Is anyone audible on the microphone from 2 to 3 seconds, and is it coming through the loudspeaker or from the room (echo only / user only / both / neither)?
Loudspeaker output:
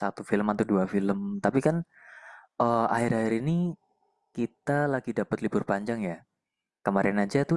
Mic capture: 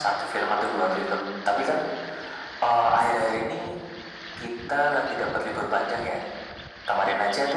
echo only